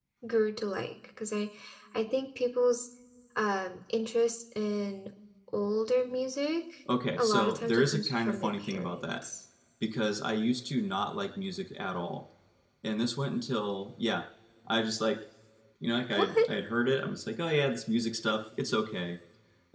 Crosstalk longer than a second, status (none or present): present